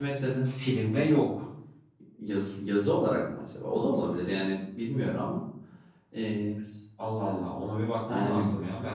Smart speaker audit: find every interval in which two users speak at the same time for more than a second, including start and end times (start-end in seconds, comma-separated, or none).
none